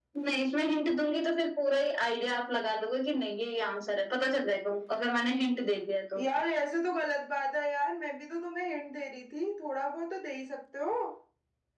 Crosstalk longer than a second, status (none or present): none